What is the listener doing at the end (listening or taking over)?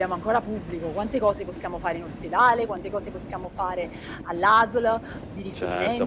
taking over